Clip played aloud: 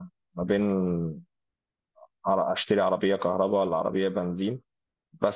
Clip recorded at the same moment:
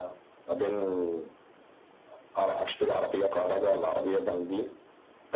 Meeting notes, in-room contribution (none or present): none